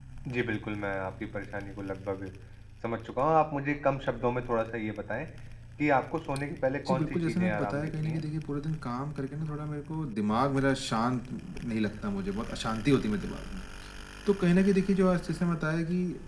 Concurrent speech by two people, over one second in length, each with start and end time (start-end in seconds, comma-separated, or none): 6.9-8.2